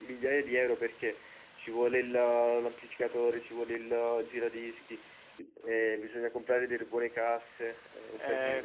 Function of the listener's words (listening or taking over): taking over